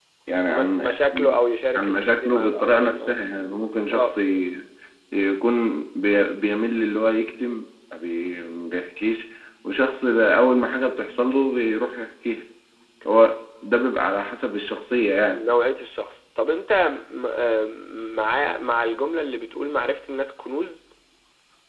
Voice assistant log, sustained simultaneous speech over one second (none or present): present